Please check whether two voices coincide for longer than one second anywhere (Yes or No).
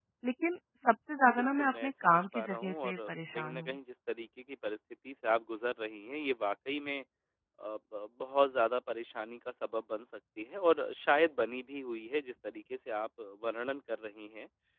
Yes